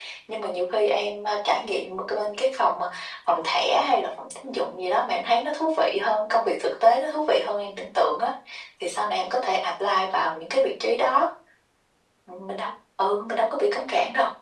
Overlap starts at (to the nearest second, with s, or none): none